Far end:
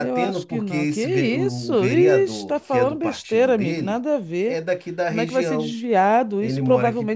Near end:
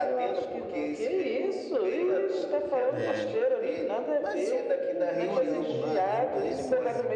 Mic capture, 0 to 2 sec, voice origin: echo only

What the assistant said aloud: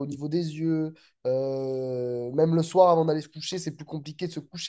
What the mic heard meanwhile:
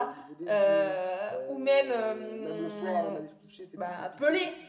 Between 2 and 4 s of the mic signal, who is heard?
both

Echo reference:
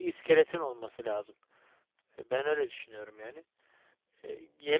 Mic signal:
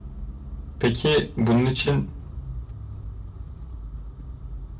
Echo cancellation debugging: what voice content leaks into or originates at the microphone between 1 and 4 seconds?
user only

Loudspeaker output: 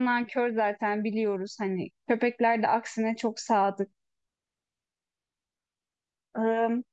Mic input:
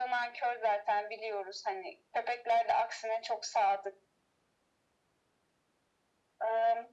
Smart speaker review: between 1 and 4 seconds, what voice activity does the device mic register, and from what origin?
echo only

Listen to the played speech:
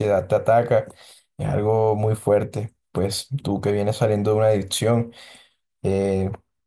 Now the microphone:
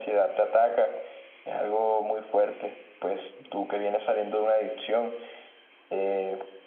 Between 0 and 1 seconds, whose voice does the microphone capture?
echo only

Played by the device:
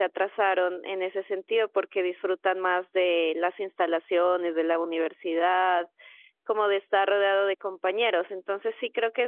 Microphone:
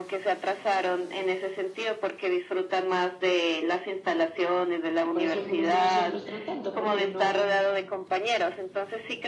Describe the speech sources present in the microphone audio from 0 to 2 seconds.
echo only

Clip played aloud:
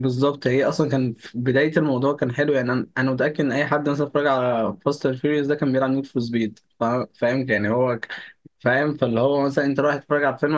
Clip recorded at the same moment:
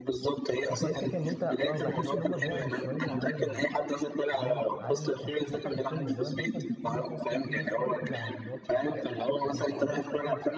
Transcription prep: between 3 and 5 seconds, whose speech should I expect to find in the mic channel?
both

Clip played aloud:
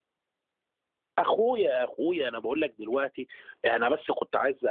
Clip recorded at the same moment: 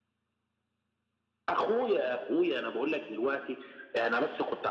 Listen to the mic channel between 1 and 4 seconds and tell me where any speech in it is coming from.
echo only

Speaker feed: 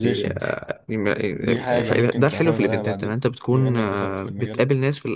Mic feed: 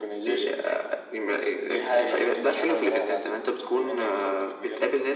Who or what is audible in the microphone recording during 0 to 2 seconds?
echo only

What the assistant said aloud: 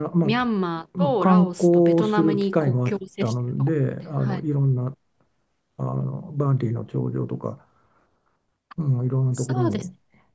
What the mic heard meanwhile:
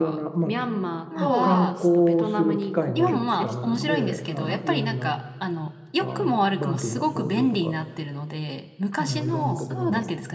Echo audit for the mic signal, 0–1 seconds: echo only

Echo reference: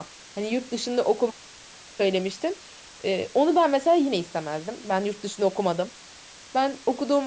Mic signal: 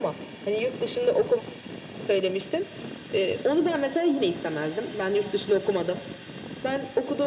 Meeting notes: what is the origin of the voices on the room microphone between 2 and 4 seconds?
echo only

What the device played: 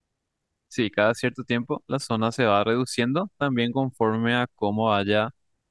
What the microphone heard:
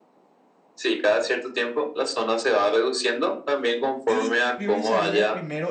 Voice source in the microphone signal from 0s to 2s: echo only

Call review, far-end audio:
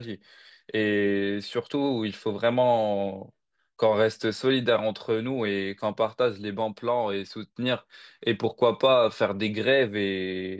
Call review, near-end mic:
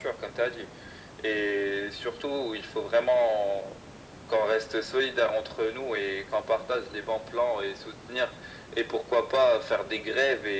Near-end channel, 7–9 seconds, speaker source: echo only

